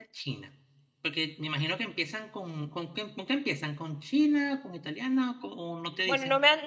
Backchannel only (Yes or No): No